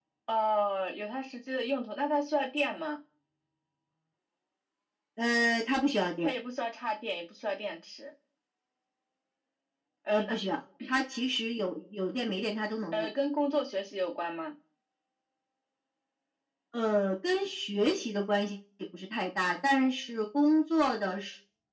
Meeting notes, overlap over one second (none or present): none